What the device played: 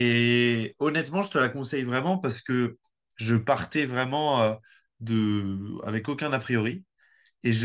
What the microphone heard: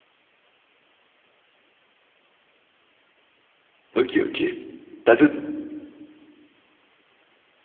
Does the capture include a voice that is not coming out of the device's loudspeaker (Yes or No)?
Yes